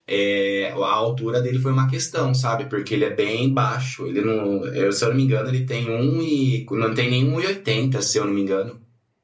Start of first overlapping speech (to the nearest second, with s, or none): none